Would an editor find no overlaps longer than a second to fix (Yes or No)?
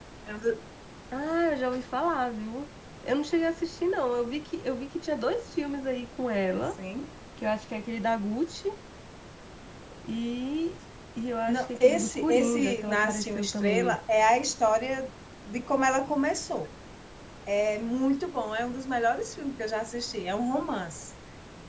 No